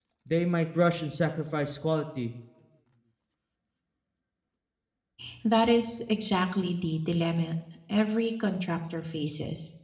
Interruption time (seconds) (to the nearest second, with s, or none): none